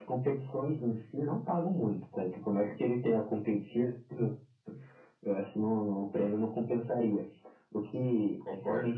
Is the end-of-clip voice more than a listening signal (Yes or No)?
No